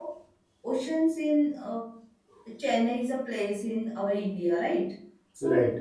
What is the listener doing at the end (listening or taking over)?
listening